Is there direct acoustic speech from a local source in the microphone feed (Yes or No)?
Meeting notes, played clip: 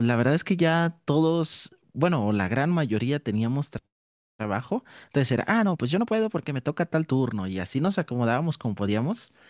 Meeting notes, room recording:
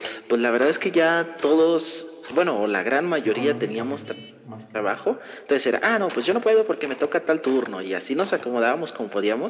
Yes